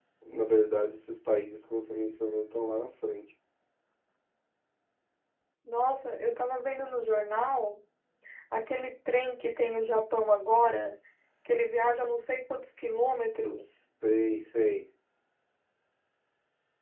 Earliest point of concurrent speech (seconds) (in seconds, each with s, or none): none